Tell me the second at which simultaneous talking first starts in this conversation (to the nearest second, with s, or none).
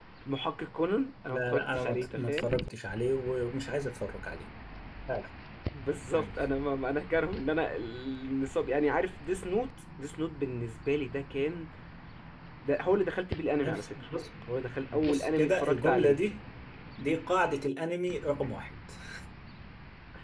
1 s